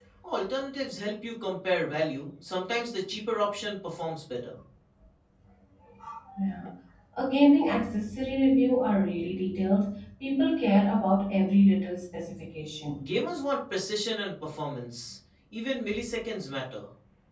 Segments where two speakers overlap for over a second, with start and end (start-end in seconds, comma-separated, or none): none